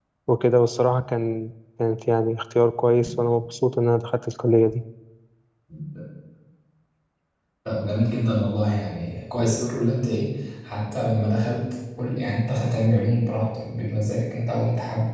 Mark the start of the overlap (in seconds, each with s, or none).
none